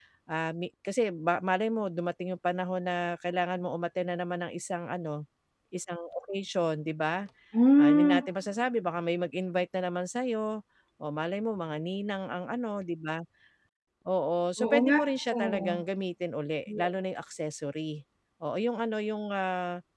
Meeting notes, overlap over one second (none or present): none